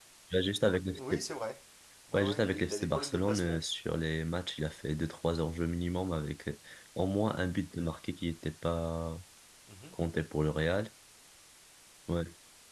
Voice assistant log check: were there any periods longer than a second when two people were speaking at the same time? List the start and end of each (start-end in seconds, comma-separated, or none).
2.1-3.6